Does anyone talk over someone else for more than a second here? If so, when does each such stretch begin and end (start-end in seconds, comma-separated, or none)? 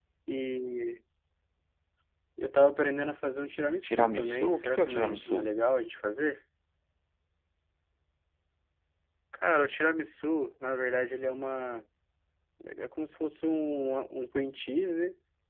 3.8-5.5